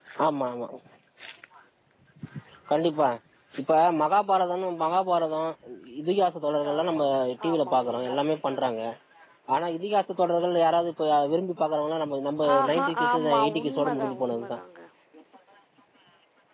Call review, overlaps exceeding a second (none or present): present